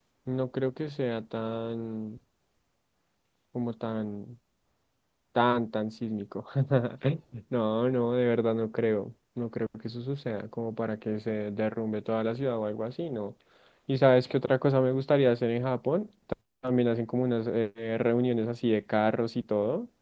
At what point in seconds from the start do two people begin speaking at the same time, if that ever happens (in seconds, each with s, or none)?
none